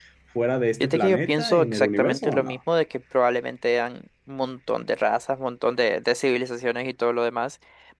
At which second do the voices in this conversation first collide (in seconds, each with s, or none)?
0.8 s